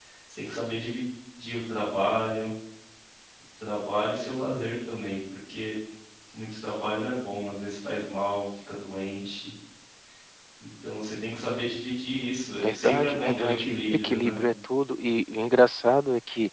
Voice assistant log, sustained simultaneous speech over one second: present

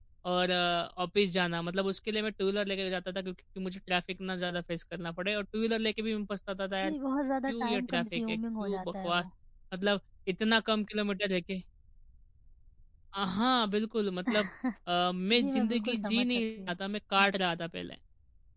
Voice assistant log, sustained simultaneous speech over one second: present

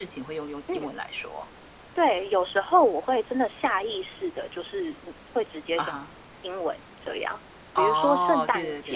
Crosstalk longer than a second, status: present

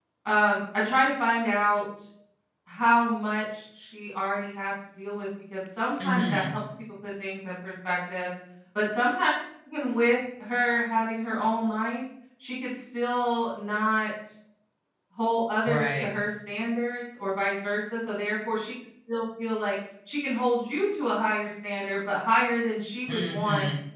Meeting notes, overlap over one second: none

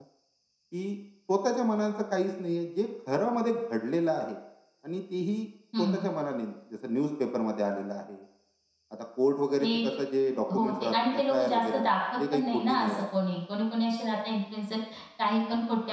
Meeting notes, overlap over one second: present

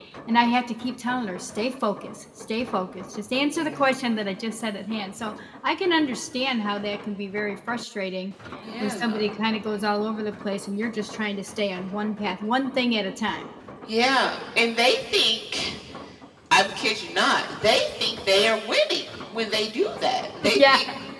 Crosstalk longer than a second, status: none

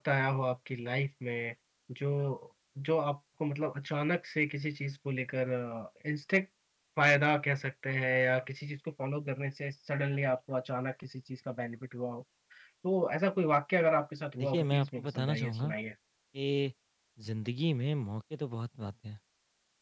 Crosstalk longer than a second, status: present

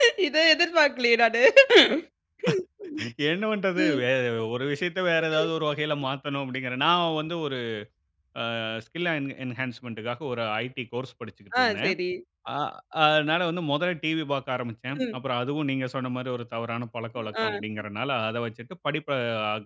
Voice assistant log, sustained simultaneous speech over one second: none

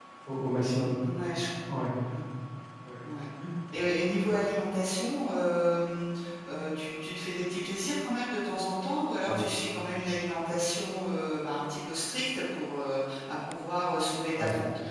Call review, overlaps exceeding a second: none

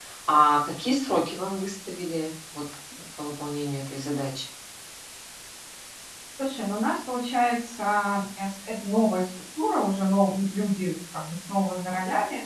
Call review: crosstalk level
none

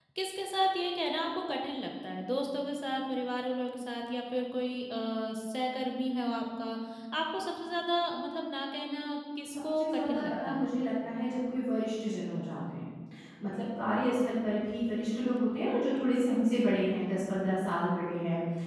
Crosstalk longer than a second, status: present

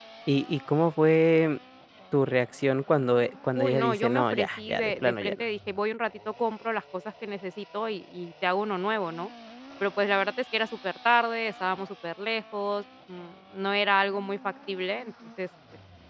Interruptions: present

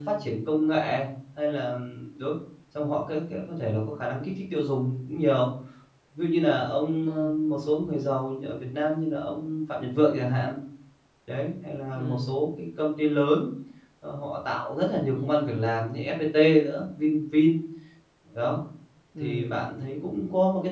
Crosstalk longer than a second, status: none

